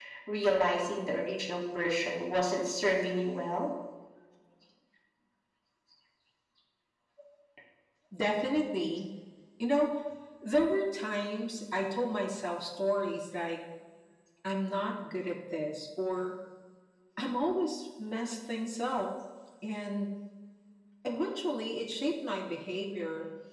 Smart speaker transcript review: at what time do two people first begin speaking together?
none

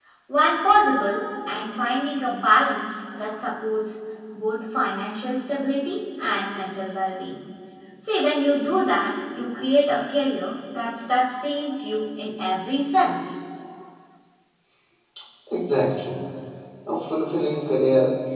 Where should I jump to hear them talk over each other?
none

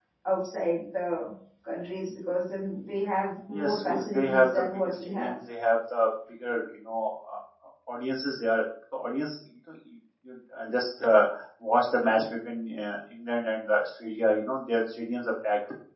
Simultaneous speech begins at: 4 s

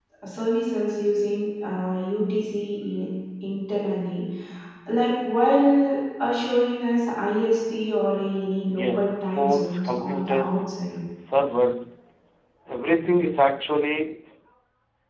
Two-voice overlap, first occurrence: 9 s

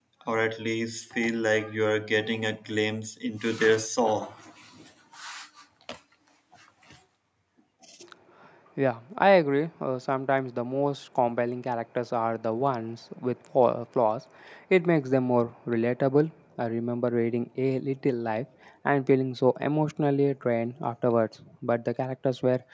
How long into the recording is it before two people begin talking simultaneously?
none

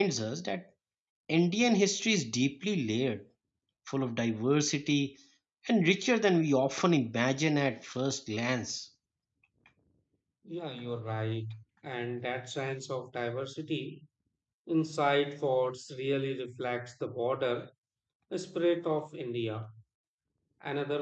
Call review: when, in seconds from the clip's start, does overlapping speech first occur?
none

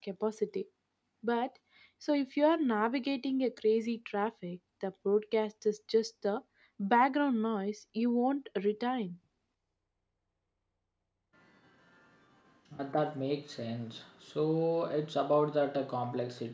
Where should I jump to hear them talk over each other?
none

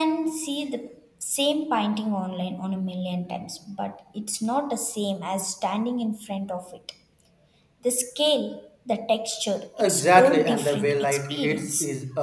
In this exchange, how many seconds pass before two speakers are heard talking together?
10 s

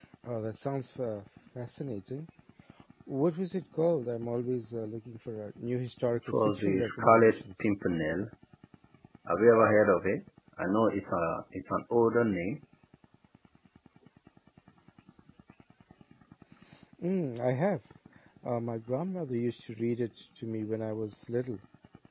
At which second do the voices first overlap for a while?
6 s

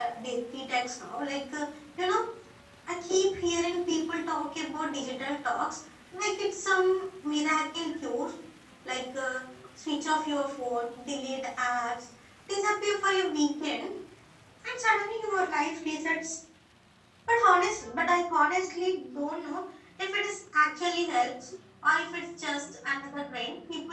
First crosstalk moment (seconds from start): none

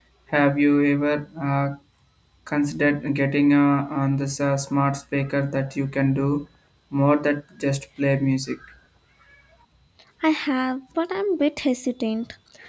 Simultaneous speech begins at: none

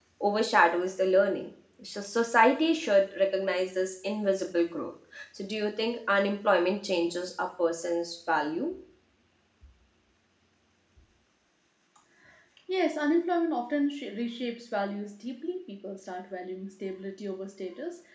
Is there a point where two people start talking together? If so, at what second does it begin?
none

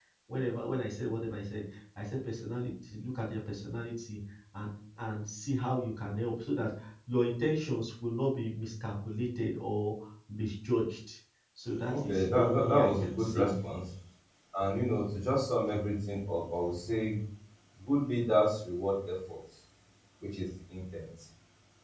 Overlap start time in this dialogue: 12 s

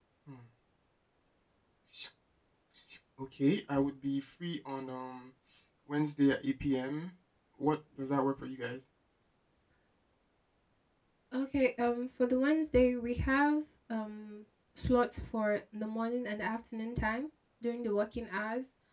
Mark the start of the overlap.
none

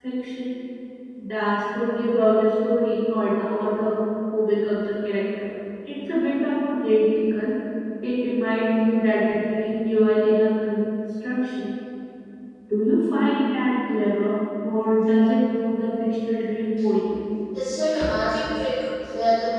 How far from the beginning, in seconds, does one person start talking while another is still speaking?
none

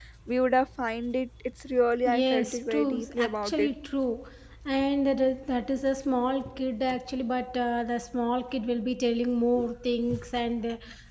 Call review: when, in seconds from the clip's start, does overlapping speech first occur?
2 s

